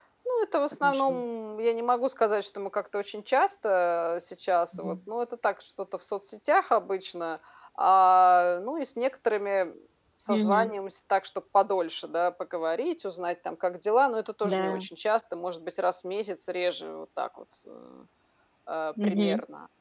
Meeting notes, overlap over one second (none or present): none